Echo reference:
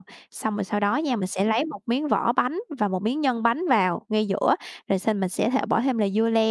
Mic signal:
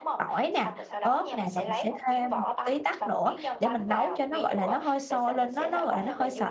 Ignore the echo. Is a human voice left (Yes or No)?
Yes